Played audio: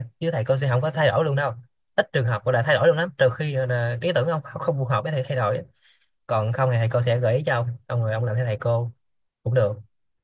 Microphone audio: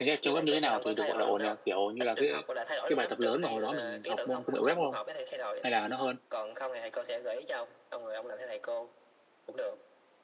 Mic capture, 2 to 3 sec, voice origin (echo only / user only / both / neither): both